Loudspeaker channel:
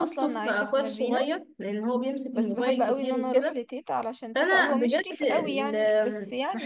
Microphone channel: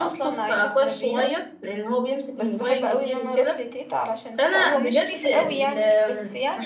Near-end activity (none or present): none